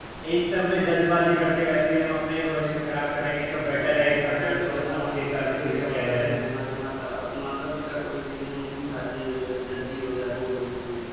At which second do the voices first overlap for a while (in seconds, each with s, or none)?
3.8 s